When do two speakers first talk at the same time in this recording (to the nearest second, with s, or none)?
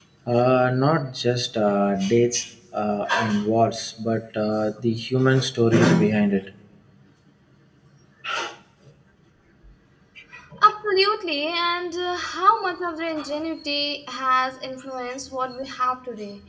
none